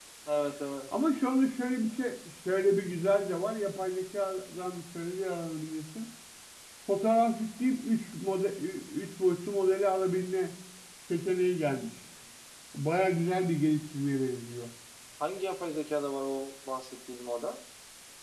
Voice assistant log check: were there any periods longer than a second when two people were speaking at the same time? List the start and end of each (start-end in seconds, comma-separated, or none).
none